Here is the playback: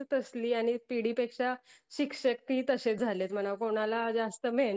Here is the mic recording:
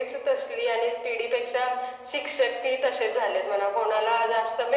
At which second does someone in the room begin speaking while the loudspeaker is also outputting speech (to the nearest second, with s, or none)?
none